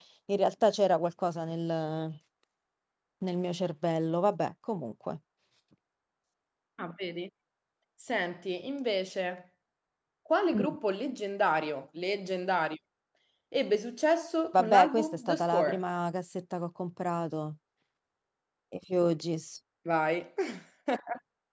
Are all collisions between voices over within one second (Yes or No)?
No